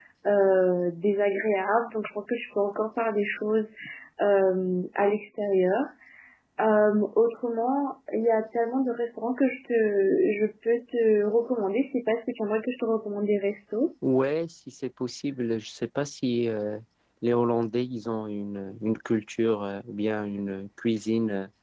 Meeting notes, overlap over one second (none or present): none